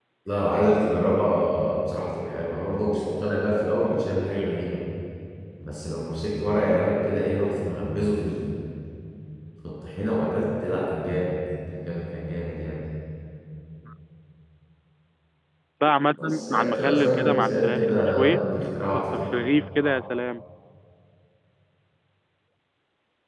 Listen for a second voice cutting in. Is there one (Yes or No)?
Yes